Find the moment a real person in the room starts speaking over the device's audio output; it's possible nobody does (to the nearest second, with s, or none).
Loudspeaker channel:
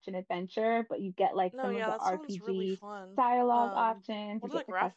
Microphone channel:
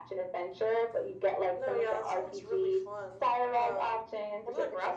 none